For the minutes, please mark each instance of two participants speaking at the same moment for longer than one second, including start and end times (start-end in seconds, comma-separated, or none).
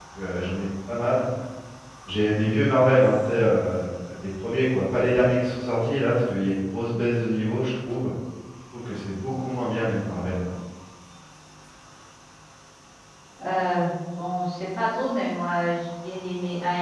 none